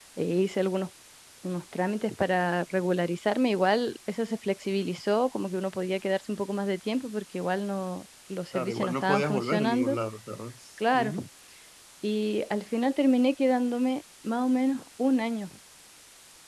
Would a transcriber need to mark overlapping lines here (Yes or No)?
Yes